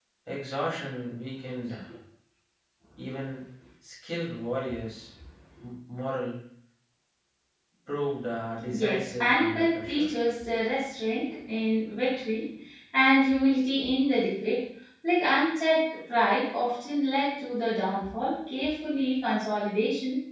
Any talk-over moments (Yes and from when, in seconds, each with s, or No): Yes, from 8.6 s